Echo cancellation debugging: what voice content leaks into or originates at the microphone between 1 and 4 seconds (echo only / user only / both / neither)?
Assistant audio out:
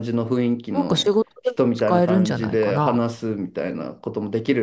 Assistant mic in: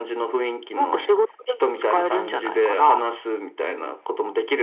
echo only